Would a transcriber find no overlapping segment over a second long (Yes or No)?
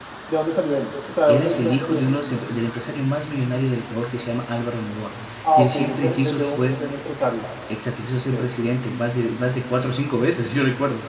No